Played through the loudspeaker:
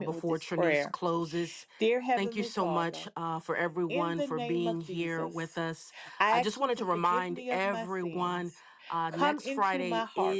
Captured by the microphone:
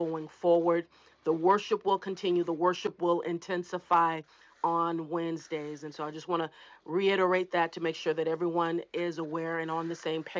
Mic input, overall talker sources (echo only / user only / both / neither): user only